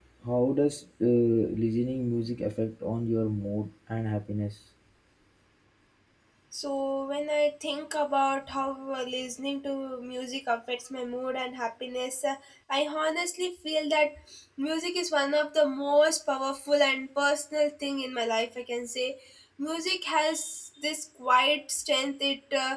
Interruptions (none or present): none